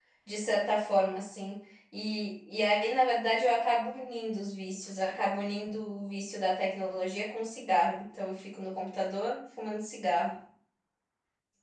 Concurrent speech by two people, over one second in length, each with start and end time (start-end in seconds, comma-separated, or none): none